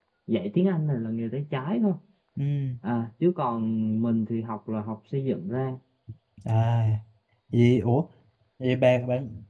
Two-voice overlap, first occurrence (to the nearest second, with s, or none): none